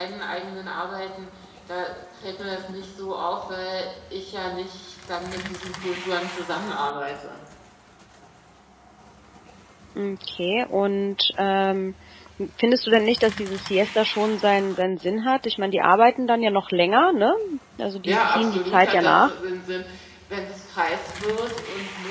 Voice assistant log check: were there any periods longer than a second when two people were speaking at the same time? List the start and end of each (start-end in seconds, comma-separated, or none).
18.1-19.3